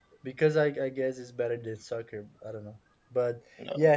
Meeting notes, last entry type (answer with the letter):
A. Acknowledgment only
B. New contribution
A